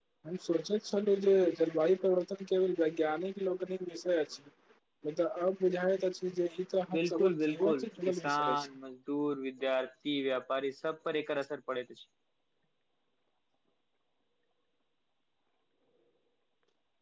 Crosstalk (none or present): present